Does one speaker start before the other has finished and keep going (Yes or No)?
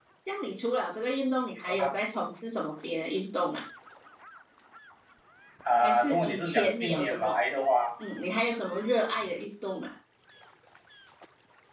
Yes